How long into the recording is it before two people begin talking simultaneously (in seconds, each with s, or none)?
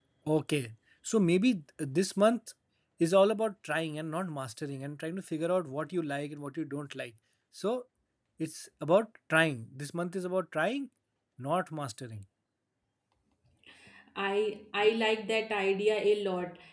none